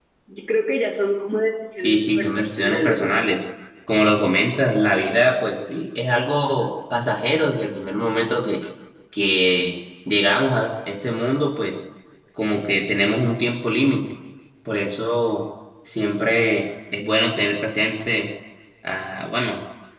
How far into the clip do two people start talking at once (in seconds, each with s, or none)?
1.8 s